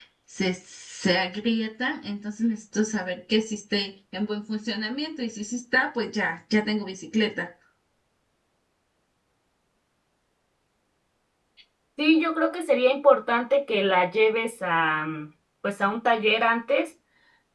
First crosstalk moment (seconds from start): none

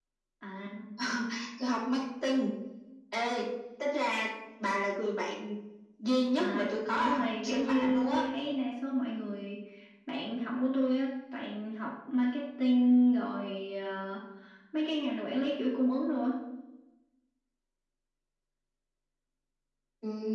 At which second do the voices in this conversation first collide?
6.3 s

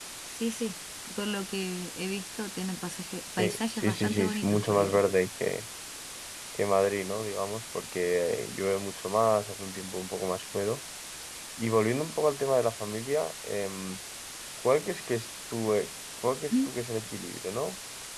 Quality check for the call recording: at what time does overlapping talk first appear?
3.4 s

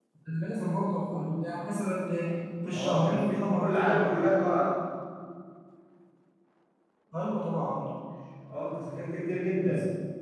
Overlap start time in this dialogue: 2.7 s

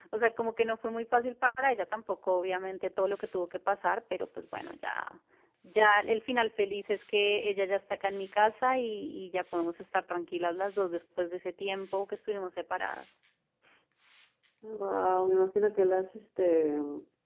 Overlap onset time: none

